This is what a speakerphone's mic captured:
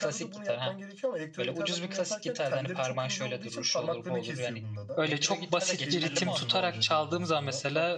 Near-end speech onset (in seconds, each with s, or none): 5.0 s